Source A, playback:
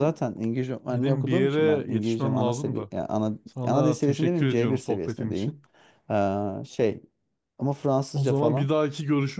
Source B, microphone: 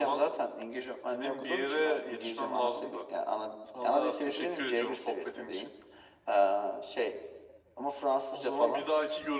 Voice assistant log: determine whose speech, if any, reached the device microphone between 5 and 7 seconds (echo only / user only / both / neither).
echo only